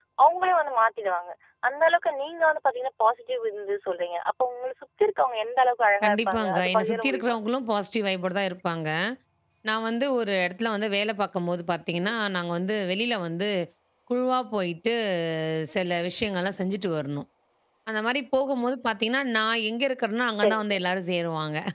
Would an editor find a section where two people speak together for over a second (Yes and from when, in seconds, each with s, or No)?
Yes, from 6.0 s